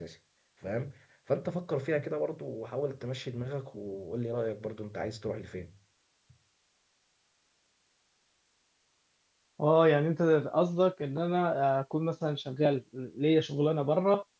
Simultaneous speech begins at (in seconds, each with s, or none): none